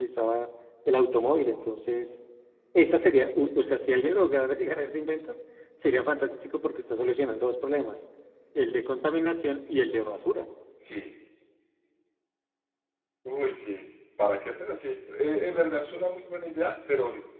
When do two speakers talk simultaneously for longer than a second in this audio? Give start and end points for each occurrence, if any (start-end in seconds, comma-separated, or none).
none